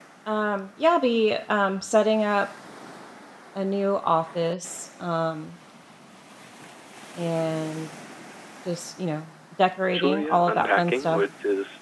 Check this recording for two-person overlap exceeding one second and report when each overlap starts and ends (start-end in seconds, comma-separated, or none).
9.9-11.2